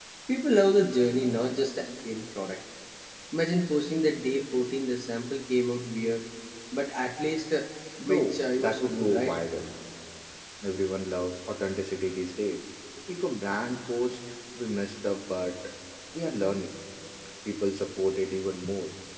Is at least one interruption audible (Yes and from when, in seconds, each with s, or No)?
Yes, from 8.1 s